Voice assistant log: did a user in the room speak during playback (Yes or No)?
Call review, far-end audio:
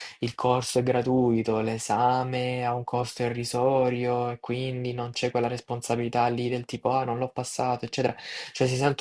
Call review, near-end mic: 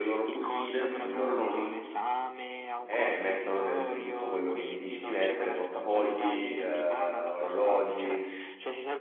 Yes